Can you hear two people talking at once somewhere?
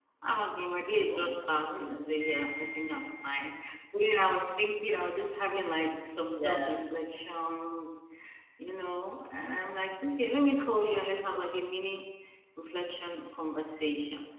Yes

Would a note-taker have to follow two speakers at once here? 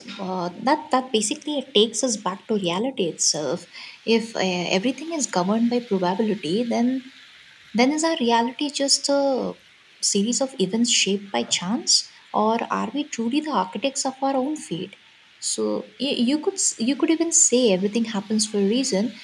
No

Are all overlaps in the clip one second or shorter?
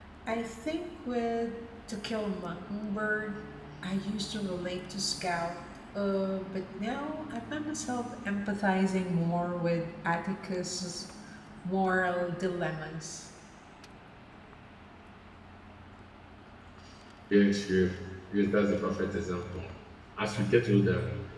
Yes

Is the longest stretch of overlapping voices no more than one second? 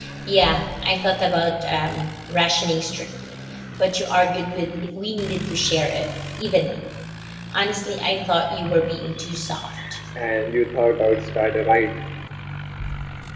Yes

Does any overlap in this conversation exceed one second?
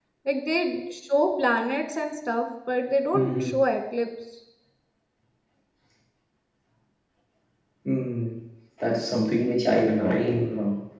No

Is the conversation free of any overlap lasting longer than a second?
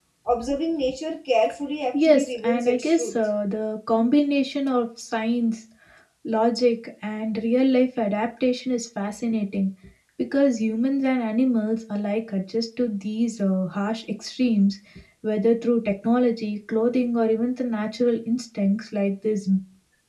No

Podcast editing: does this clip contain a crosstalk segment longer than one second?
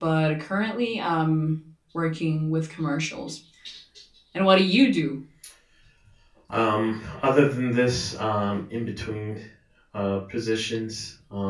No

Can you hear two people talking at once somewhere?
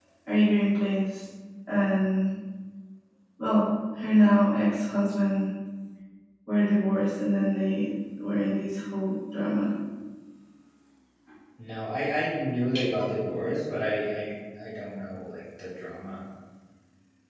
No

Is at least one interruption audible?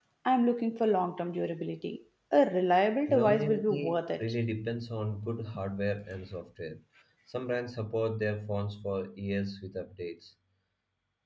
Yes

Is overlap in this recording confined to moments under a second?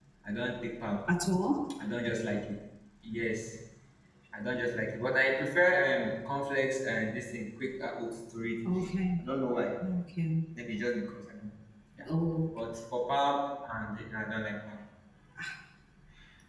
Yes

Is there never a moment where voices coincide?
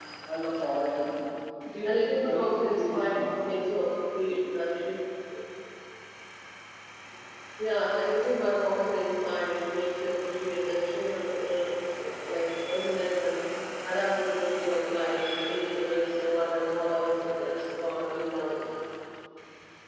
No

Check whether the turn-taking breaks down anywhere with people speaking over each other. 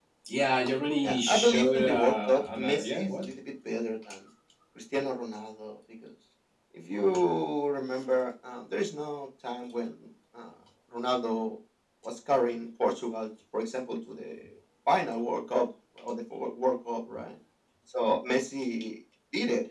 Yes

